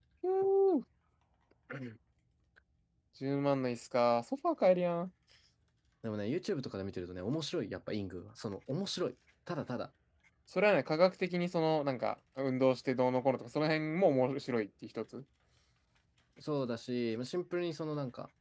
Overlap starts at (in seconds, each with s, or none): none